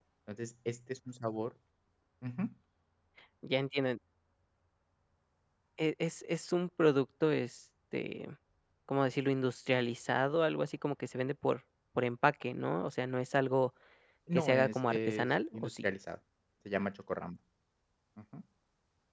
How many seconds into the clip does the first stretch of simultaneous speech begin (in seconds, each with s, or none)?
14.3 s